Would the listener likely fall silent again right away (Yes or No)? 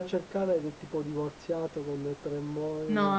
No